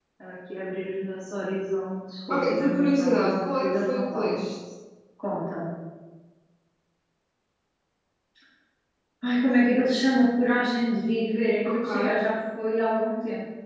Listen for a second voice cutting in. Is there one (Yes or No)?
Yes